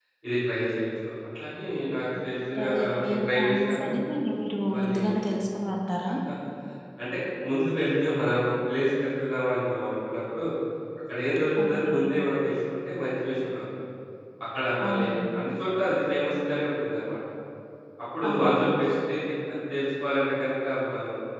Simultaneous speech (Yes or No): Yes